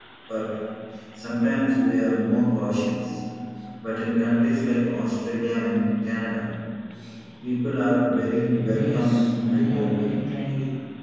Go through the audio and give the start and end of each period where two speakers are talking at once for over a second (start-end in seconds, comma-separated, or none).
8.7-10.2